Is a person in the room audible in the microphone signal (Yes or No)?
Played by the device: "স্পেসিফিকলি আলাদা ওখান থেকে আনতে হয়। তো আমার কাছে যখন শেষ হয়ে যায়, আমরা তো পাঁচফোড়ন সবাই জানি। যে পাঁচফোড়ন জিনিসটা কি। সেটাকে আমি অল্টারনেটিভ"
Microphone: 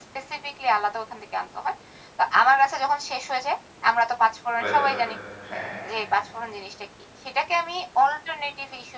Yes